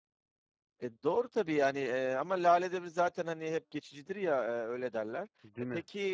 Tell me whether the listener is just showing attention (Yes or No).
Yes